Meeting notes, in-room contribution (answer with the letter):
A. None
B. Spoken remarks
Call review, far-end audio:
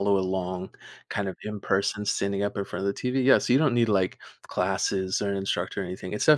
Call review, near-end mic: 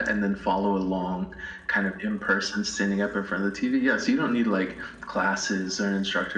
A